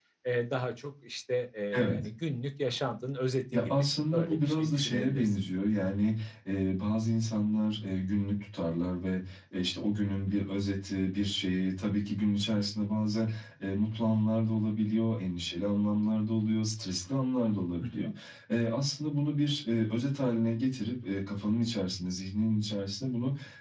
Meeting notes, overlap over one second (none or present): present